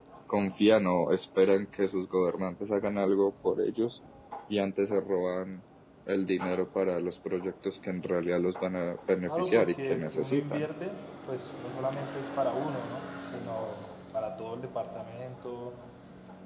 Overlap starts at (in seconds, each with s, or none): 9.2 s